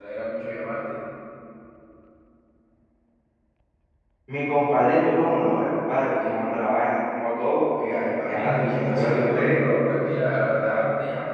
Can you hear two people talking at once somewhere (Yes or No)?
Yes